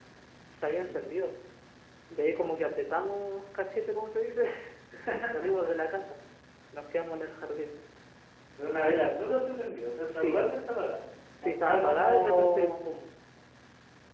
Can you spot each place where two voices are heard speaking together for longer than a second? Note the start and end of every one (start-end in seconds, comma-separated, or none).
11.4-12.8